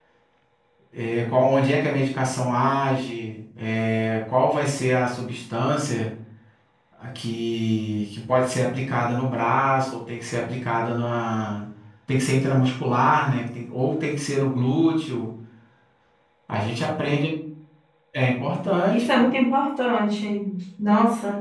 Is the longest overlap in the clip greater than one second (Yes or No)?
No